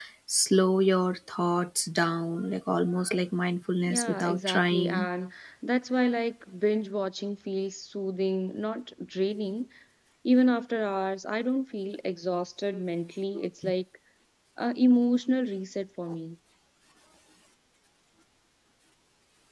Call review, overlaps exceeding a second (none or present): present